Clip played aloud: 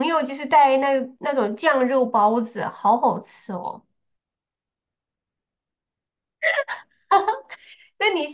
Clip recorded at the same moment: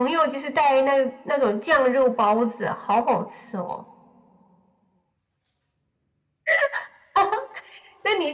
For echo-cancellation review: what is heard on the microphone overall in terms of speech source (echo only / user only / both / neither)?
echo only